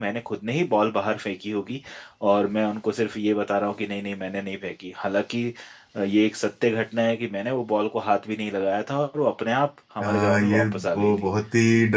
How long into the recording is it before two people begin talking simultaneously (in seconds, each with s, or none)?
10.0 s